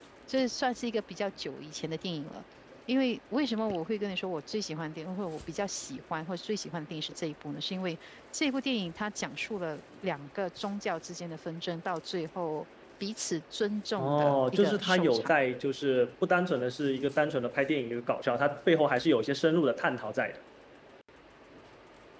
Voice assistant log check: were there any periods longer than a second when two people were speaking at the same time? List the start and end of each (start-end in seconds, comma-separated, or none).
14.0-15.3